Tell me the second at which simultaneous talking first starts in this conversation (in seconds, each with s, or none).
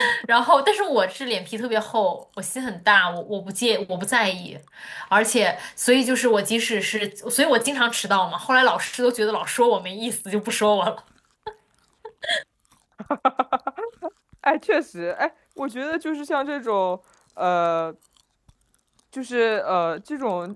none